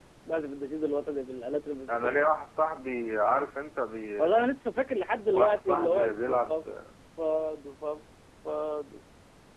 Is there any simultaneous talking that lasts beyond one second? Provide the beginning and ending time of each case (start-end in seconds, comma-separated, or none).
5.3-6.6